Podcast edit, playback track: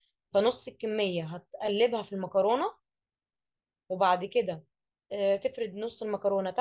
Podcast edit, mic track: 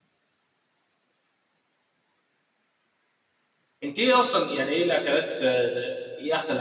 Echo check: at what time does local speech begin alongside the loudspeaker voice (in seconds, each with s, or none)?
3.8 s